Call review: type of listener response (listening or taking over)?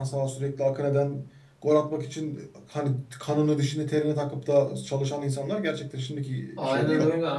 taking over